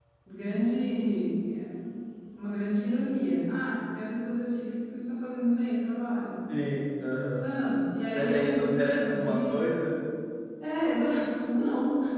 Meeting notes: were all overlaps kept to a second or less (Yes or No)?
No